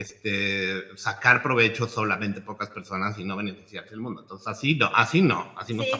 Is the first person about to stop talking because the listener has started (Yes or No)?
Yes